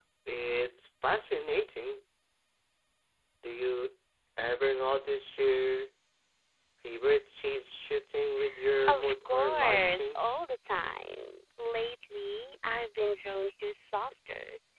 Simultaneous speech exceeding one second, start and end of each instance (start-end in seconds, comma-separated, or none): 8.9-10.4